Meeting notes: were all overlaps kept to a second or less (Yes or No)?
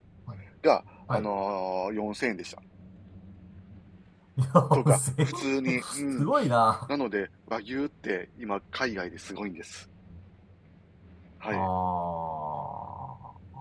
No